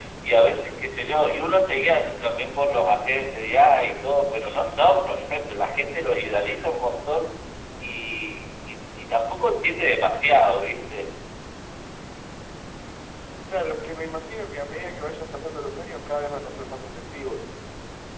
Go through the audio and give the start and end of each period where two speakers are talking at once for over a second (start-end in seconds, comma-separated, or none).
none